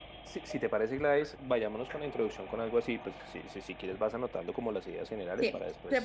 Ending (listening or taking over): taking over